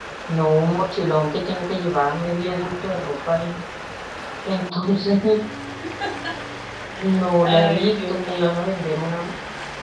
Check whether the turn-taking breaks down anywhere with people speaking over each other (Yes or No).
Yes